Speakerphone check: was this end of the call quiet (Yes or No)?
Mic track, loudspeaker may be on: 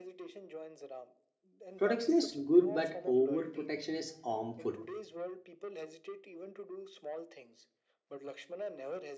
No